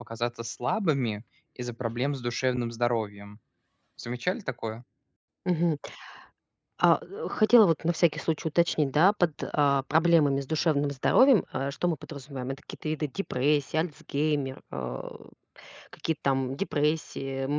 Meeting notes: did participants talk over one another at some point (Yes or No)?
No